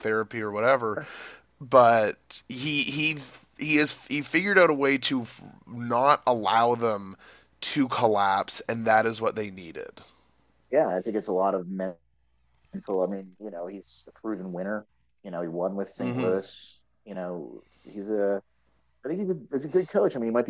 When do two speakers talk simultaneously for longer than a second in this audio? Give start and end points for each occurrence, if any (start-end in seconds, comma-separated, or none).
none